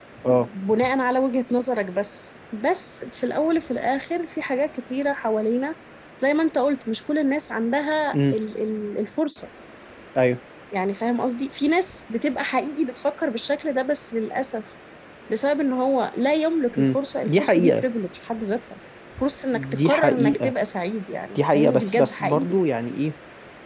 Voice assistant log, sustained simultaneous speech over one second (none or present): present